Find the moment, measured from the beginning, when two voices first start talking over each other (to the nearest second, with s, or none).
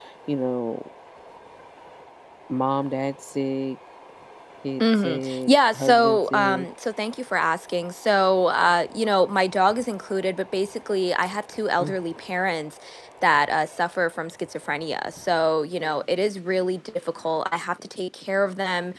5 s